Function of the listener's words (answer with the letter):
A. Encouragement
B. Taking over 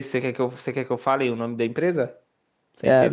B